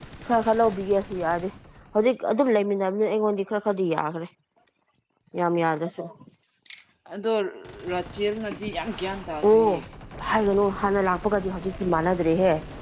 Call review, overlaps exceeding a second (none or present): none